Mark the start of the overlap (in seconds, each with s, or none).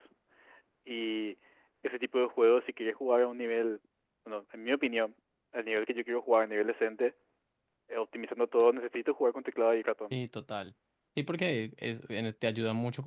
none